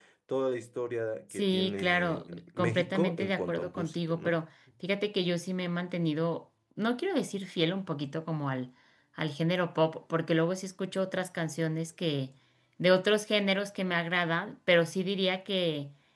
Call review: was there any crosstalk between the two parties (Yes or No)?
Yes